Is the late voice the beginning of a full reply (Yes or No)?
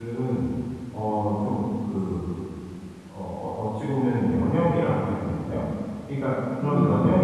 No